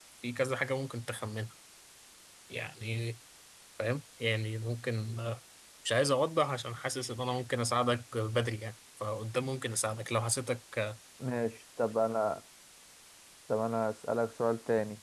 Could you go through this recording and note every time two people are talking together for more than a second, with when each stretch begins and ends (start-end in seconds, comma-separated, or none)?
none